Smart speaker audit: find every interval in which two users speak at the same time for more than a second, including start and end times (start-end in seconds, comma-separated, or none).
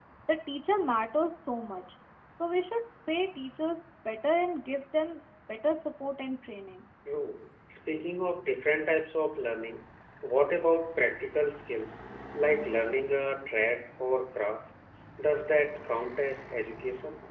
none